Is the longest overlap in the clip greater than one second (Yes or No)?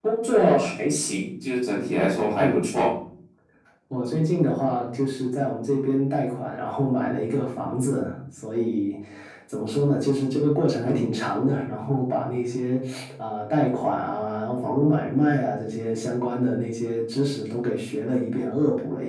No